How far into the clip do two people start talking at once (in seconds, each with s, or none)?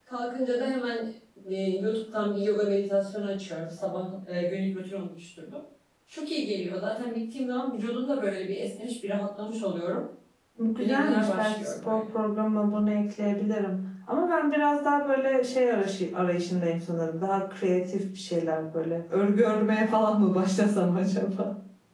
10.8 s